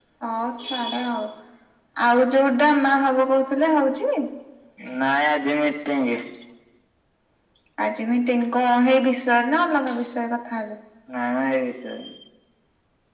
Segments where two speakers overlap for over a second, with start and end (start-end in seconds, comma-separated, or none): none